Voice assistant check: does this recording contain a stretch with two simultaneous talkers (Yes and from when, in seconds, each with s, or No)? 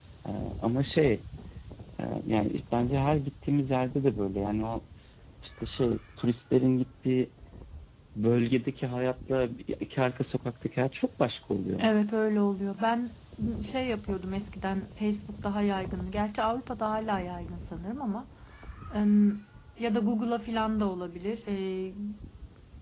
No